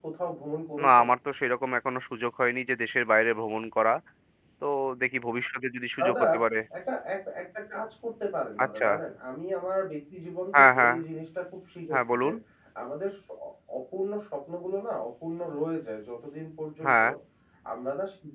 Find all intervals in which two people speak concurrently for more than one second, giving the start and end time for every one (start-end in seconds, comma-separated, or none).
none